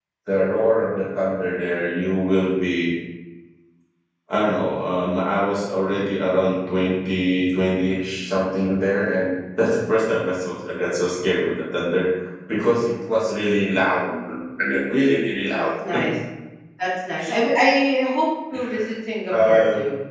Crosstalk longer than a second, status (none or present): none